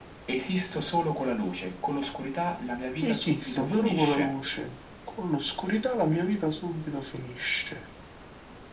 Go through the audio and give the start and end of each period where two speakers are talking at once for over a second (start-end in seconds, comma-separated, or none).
3.0-4.3